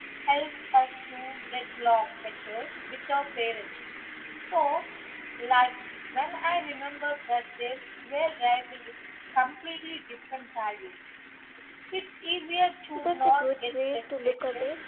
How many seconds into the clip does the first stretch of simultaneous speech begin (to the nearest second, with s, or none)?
13 s